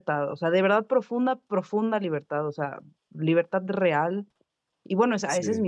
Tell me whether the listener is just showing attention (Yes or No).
Yes